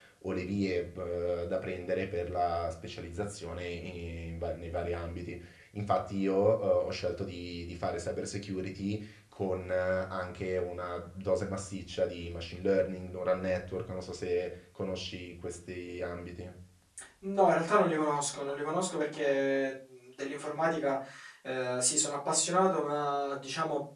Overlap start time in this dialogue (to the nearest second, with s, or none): none